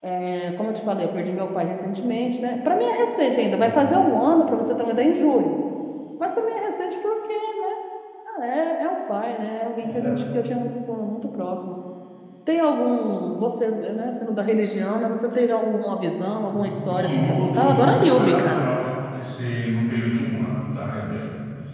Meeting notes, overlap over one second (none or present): present